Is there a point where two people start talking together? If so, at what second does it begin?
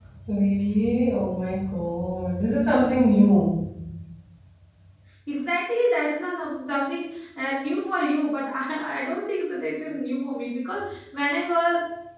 none

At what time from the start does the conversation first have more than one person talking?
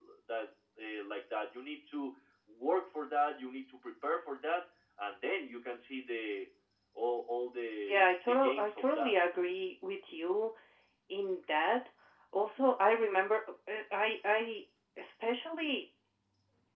7.9 s

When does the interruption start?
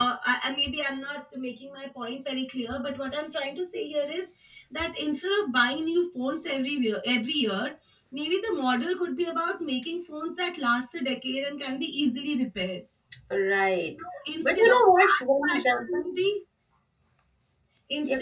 14.4 s

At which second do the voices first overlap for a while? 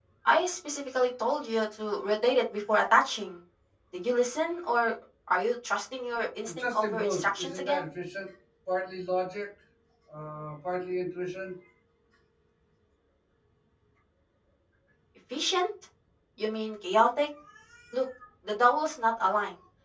6.4 s

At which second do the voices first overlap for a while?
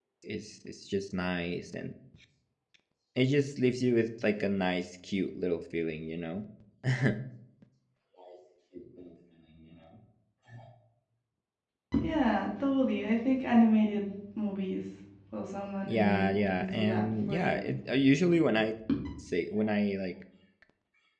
15.9 s

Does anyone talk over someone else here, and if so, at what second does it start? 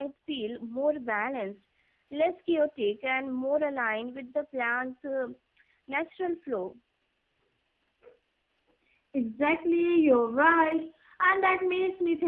none

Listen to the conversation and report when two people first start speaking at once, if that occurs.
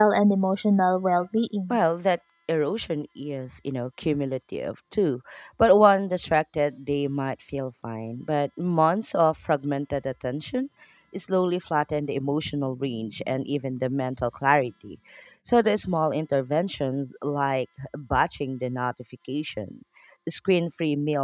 none

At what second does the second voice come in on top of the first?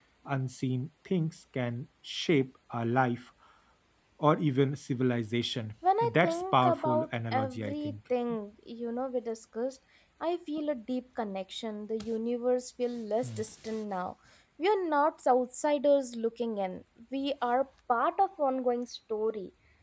5.8 s

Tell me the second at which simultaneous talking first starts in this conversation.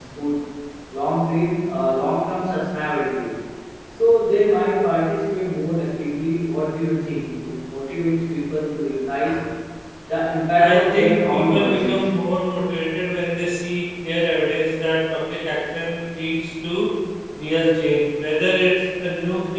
10.6 s

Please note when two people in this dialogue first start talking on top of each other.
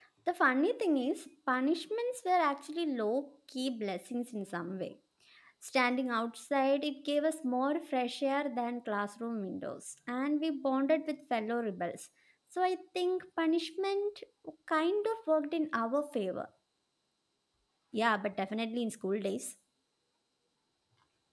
none

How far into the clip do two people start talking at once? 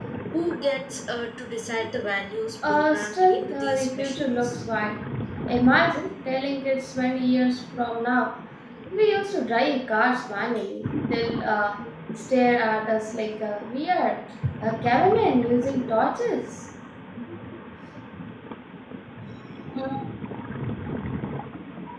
2.6 s

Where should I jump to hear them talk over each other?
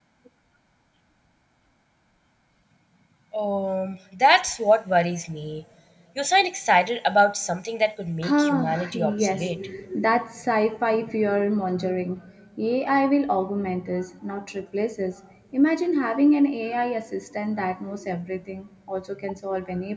8.2 s

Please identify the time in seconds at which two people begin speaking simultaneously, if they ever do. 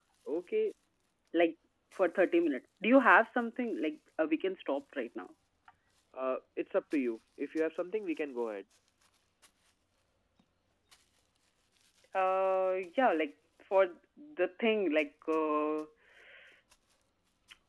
none

